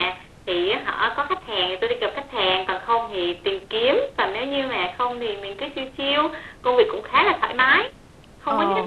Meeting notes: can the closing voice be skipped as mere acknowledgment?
Yes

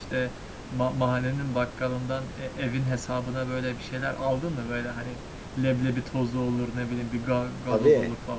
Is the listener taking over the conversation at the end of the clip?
Yes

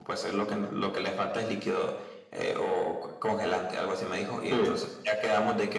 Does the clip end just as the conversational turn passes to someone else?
No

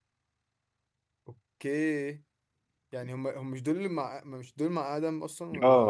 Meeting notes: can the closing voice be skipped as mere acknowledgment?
No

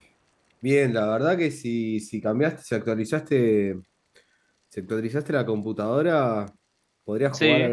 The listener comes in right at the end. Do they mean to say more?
No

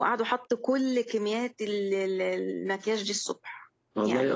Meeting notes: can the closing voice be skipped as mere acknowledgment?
No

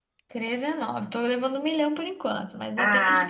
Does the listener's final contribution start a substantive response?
Yes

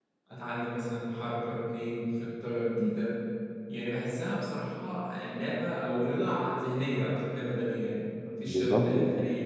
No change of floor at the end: Yes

